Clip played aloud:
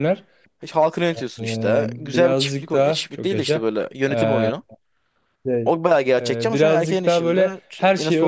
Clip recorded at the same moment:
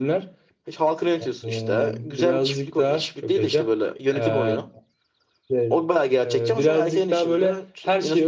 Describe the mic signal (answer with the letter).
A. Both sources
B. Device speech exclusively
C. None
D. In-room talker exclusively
B